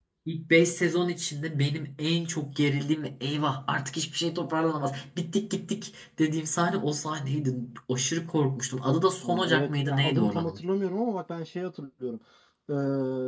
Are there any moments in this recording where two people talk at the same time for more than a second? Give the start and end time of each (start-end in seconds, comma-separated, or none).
9.2-10.6